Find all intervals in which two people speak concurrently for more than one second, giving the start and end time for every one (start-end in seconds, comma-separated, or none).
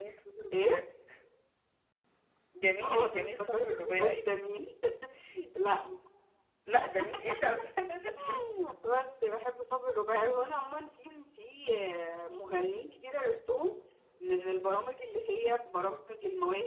2.8-4.2